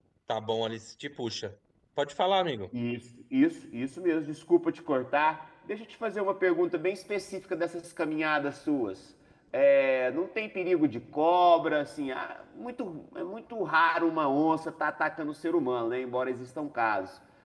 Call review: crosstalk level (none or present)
none